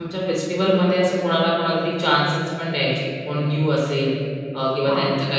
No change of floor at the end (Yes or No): Yes